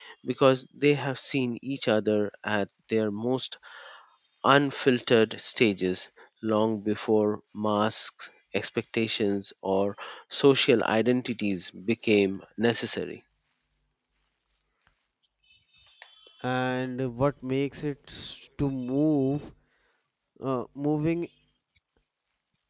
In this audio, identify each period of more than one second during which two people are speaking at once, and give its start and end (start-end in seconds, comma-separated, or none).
none